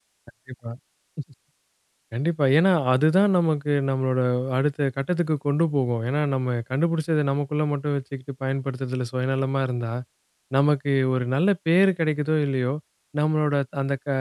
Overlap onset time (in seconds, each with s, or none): none